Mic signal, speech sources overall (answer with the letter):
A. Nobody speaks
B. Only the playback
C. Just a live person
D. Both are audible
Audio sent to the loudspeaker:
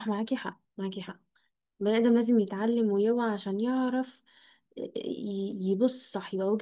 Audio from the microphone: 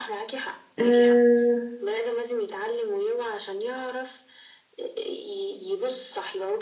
D